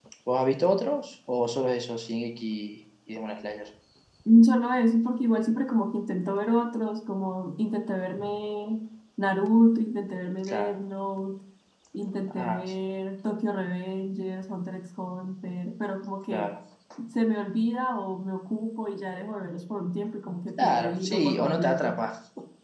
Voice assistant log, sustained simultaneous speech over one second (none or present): present